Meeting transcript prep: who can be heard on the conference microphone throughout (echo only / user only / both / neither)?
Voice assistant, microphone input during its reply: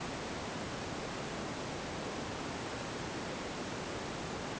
neither